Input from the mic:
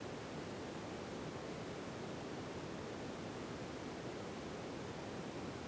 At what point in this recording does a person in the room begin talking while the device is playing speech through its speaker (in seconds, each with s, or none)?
none